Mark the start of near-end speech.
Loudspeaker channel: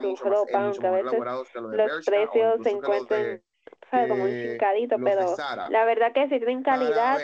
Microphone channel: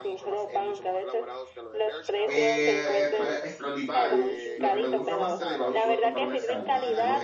2.2 s

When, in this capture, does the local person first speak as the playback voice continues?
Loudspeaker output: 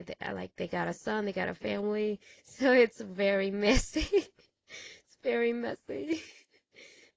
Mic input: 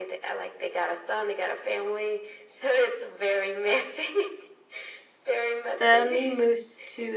5.8 s

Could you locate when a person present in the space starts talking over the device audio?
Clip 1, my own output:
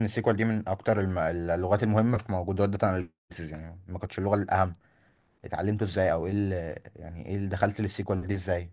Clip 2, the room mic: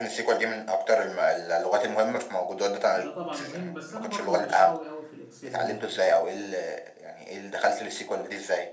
2.9 s

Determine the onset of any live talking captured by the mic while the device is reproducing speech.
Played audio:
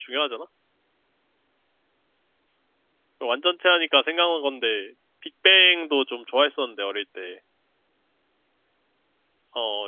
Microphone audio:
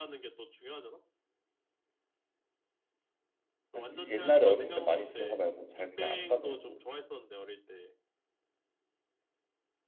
3.7 s

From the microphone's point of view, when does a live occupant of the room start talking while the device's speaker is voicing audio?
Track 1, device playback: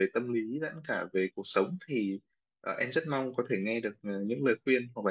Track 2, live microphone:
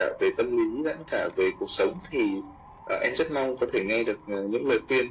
none

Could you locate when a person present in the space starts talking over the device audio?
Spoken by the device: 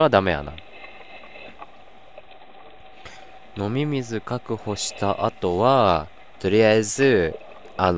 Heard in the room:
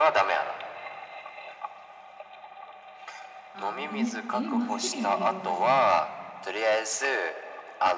3.5 s

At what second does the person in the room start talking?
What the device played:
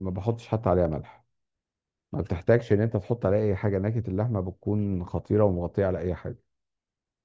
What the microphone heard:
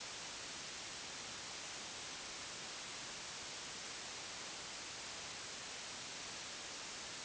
none

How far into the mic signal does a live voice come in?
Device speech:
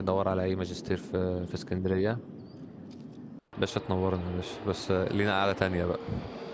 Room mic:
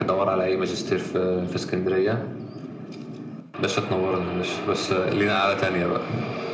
none

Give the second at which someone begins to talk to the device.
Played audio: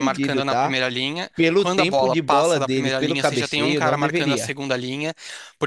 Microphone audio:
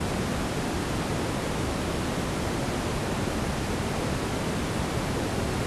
none

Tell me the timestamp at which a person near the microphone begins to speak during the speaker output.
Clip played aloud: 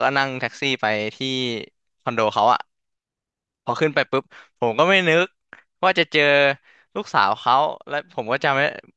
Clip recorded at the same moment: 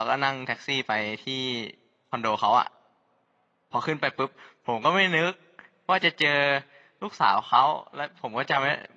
none

